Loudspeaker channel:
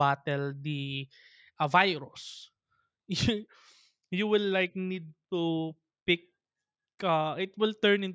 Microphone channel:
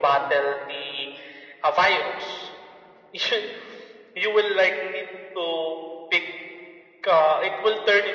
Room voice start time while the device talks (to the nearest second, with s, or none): none